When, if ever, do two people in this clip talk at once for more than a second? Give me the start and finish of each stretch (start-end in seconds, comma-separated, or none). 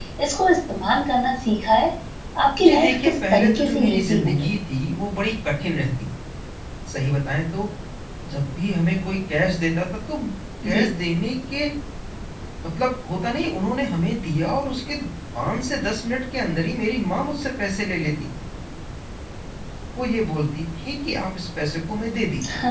2.6-4.5